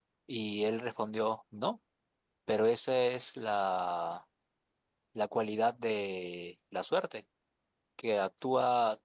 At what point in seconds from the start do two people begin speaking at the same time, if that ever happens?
none

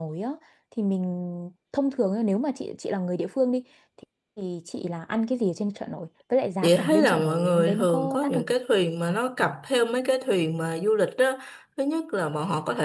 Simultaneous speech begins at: 7 s

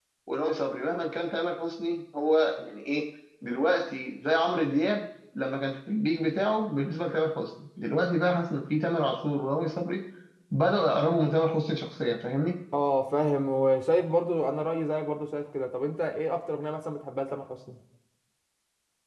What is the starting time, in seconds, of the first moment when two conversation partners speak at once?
none

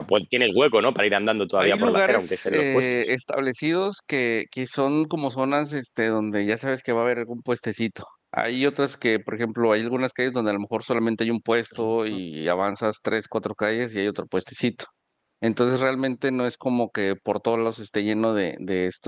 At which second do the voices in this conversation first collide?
2 s

